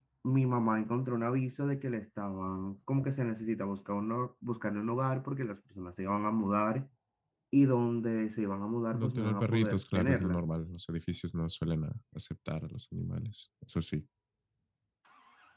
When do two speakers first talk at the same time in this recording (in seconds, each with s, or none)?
8.9 s